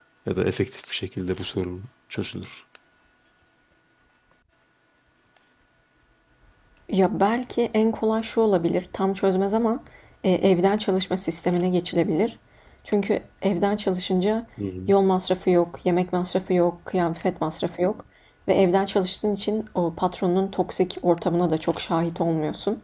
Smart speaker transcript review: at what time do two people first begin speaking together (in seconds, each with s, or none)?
none